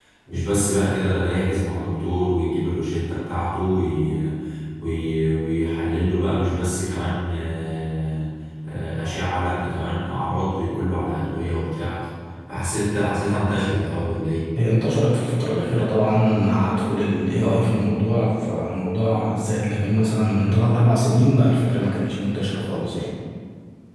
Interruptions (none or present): none